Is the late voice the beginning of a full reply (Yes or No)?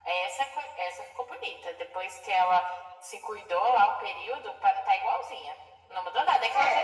No